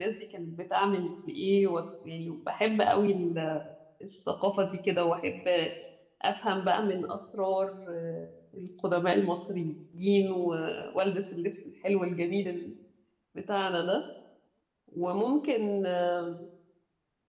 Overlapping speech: No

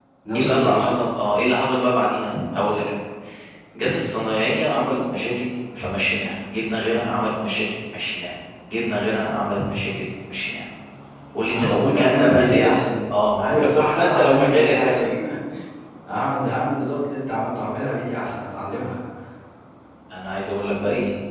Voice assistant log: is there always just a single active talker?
No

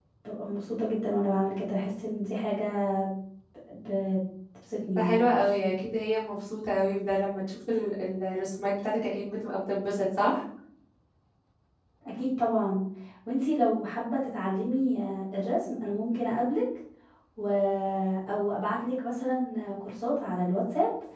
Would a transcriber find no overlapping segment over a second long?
Yes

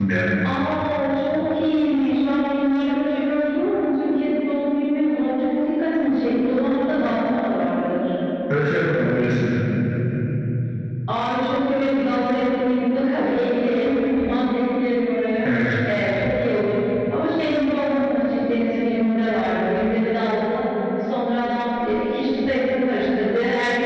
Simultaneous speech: No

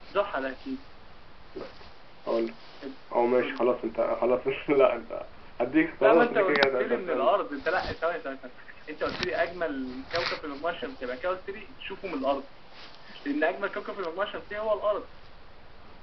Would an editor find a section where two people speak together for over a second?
Yes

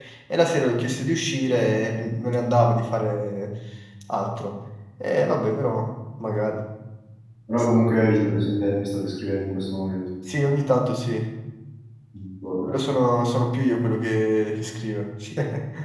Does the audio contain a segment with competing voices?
No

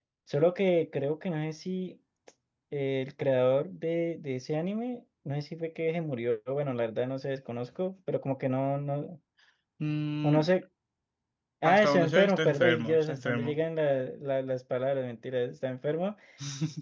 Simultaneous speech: Yes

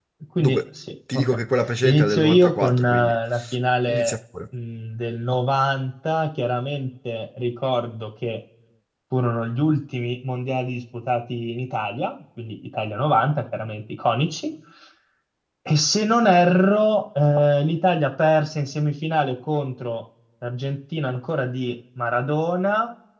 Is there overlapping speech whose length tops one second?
Yes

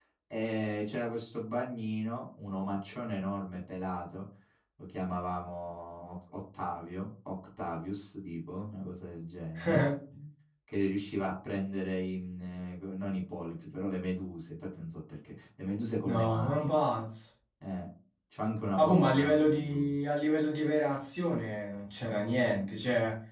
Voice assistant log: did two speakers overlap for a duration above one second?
Yes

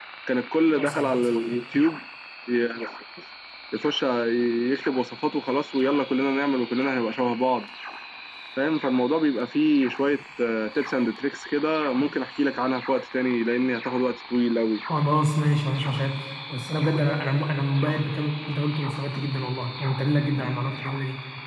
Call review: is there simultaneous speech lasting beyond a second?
No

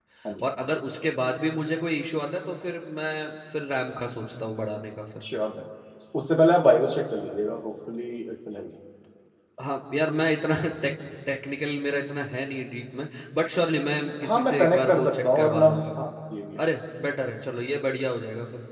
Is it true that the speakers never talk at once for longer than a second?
No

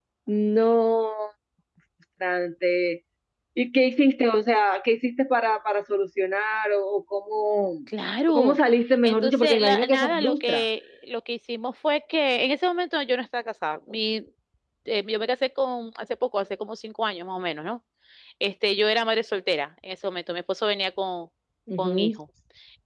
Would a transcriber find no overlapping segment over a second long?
No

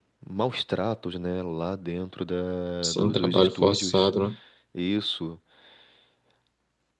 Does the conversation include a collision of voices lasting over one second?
Yes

